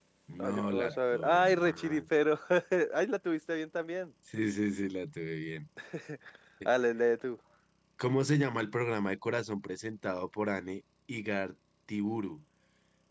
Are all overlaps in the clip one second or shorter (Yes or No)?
No